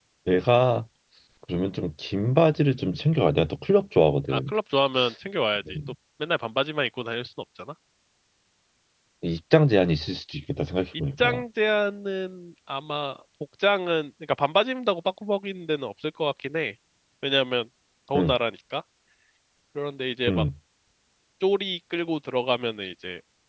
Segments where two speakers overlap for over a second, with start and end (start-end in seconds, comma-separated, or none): none